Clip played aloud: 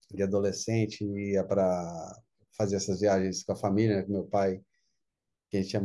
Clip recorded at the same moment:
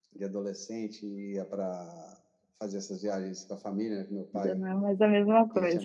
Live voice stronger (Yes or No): Yes